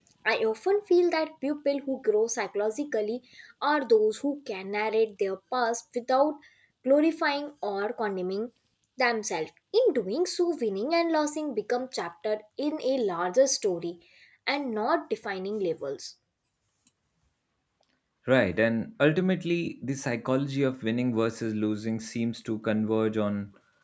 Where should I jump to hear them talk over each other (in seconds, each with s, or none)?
none